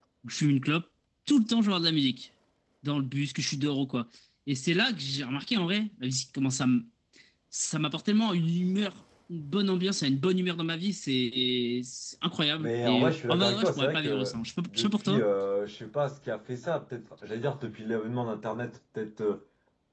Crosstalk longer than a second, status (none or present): present